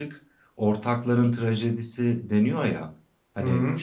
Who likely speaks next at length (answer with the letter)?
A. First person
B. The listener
A